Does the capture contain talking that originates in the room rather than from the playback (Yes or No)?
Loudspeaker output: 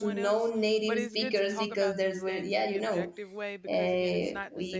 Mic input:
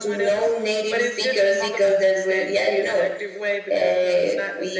No